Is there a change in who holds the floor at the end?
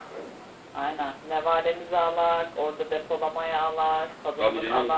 Yes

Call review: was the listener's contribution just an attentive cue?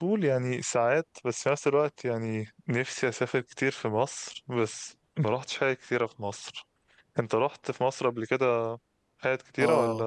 No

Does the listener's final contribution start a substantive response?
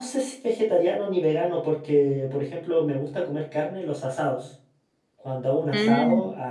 No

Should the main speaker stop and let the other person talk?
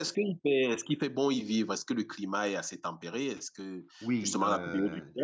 Yes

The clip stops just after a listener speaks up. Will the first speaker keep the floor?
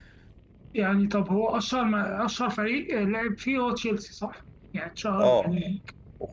No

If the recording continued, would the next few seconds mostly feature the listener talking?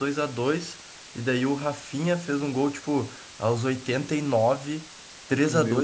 No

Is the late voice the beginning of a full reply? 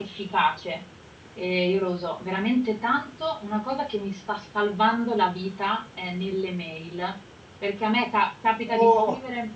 No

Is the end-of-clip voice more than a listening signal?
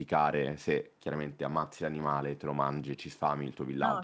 No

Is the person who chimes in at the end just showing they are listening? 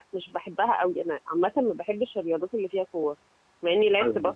Yes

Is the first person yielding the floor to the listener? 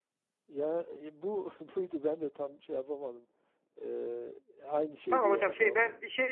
Yes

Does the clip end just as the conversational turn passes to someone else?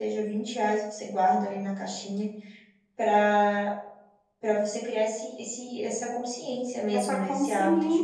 Yes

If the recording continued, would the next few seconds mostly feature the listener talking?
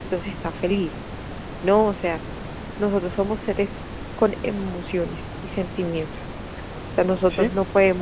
No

